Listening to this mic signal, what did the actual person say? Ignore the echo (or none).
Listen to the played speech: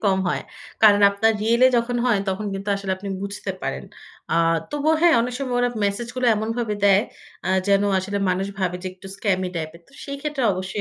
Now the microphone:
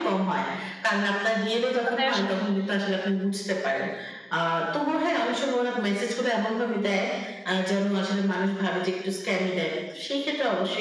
তাদের আস